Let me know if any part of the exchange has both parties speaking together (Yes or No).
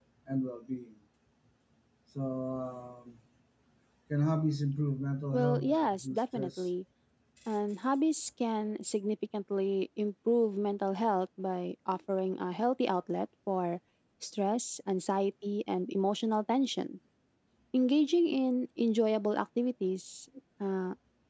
Yes